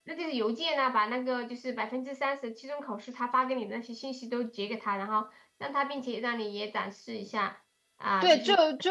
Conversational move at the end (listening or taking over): taking over